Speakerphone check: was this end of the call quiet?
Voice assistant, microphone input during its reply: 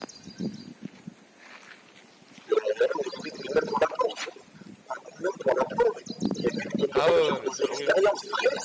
No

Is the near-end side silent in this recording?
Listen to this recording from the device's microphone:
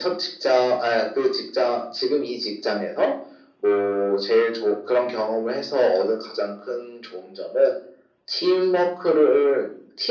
Yes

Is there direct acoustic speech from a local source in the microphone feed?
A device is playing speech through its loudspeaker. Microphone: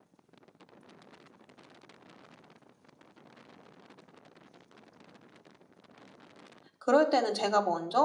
Yes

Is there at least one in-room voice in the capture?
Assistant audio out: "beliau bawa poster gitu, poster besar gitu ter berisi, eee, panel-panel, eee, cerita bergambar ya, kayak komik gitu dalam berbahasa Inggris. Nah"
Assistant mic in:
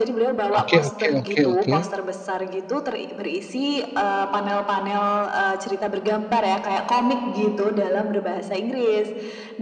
Yes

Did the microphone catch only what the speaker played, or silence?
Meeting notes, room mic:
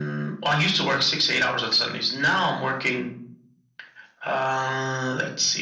Yes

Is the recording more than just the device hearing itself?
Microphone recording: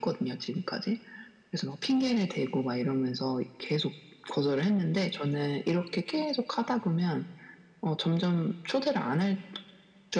No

